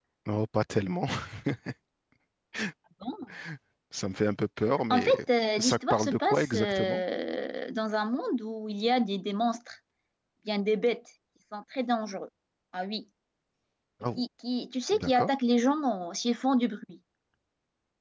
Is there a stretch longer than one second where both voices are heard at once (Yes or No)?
Yes